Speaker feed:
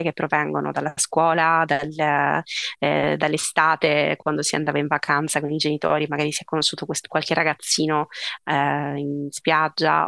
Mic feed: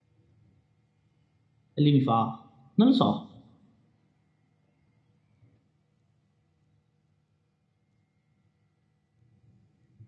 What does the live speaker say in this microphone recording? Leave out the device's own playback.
E lui mi fa, non lo so.

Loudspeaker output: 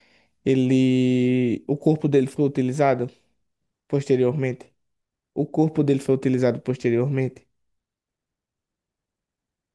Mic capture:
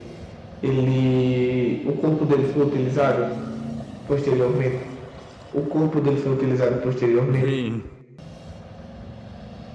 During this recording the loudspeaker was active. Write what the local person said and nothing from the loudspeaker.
Bem,

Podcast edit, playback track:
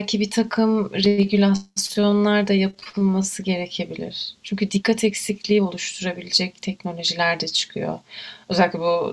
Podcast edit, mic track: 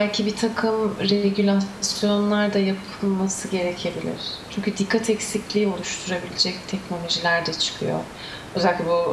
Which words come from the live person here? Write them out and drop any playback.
none

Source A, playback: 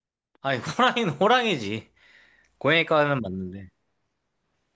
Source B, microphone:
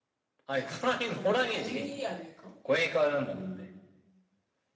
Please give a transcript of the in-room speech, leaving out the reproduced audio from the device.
더 우위 아닐까?

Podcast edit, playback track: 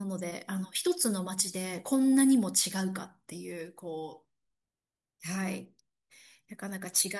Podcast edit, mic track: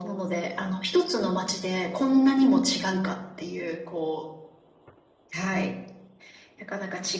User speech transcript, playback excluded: none

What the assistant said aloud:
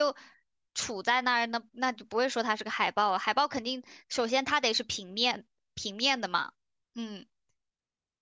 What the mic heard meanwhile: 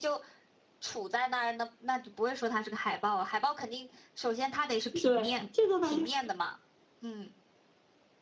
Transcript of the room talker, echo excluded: 对，这个吧就是

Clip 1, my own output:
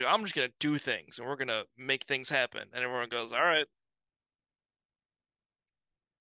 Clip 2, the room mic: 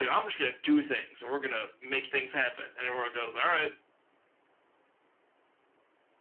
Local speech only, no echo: none

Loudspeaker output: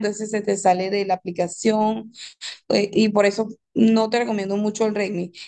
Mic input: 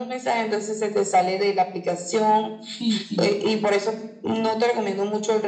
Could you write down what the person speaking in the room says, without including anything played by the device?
Sí, sí,

